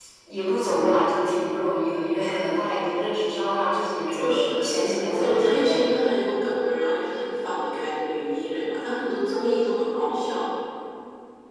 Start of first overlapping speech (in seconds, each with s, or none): 4.1 s